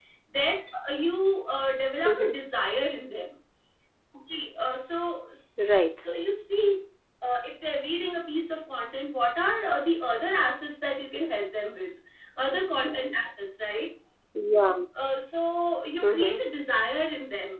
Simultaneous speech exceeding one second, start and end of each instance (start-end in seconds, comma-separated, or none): none